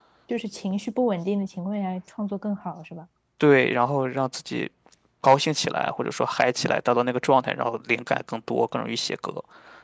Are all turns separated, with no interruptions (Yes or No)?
Yes